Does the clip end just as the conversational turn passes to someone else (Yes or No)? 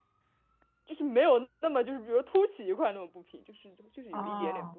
Yes